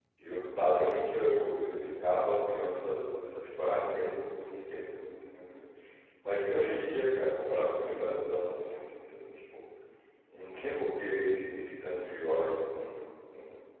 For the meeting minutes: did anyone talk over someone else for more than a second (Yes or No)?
No